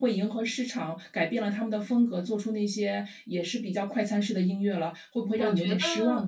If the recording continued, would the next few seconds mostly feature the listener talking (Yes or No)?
Yes